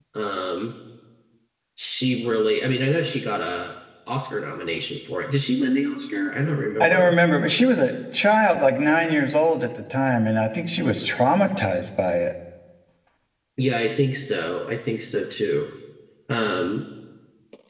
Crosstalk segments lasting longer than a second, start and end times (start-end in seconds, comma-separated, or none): none